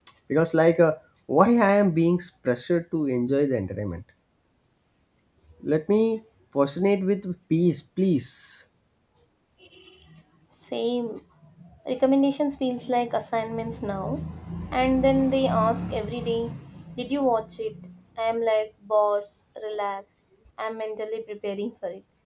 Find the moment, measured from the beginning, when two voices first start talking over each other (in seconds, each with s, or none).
none